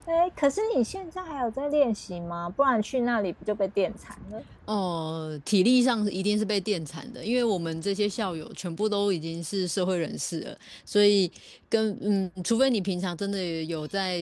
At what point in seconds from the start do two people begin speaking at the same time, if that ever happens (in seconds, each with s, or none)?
none